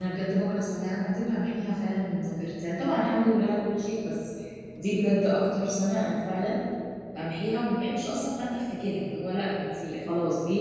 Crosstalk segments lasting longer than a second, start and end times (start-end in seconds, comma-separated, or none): none